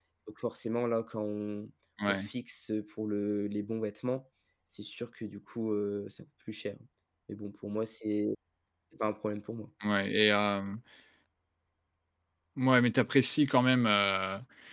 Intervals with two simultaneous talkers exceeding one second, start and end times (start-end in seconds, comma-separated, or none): none